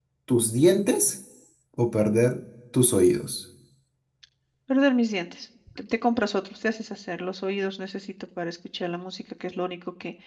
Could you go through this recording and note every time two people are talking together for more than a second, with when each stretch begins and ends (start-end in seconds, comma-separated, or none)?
none